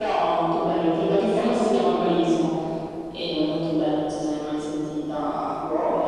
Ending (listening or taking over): taking over